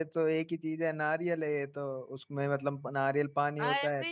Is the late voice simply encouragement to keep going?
Yes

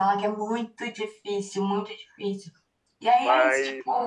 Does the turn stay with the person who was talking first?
No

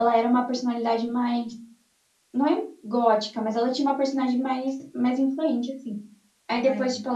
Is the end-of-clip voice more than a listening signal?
No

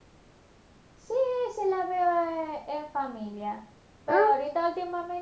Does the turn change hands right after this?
No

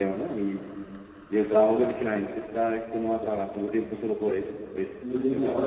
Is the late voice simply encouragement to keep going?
No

